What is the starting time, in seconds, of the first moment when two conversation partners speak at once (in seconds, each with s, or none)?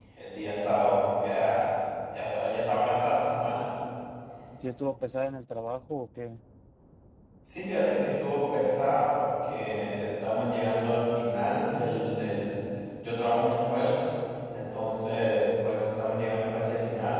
none